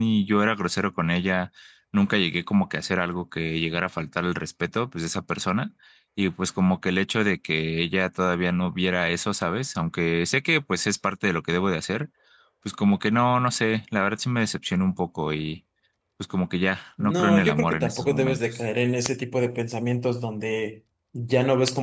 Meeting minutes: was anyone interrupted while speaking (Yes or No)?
Yes